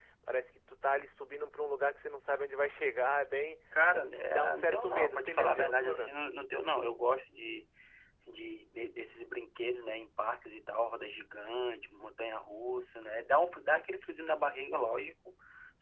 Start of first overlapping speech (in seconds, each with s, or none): 3.7 s